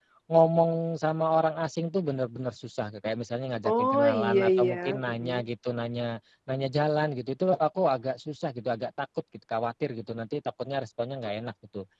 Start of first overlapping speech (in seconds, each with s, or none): 3.6 s